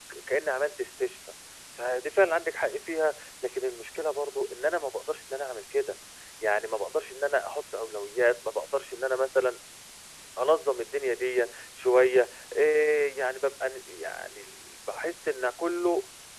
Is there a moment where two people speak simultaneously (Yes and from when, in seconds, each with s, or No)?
No